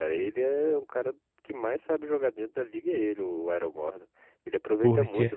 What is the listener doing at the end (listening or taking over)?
listening